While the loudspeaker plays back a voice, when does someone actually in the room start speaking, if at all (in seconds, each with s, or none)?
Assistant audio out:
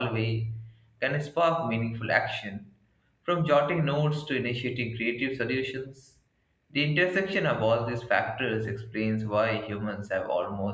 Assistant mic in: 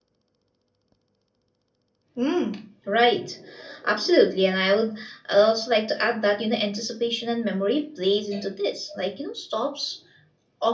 2.2 s